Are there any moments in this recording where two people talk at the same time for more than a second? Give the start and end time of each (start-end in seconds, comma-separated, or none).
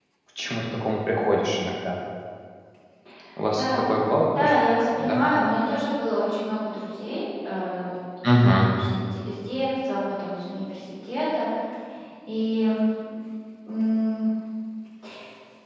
none